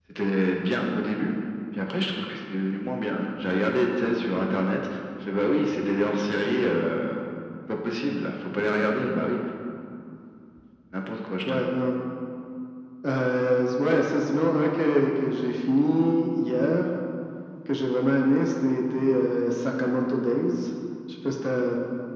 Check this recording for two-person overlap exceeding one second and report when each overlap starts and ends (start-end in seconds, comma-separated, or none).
none